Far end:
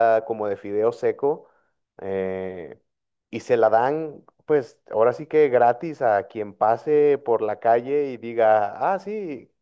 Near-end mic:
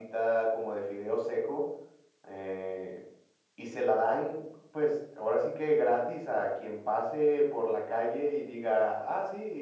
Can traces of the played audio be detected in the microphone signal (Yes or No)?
Yes